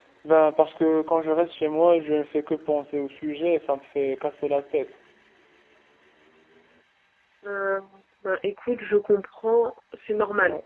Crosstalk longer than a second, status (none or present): none